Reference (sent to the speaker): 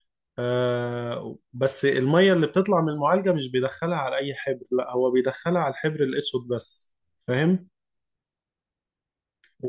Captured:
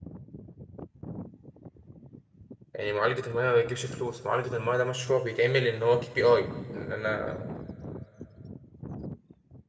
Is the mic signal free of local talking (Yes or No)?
No